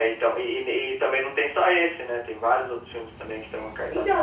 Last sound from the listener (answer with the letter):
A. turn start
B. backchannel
A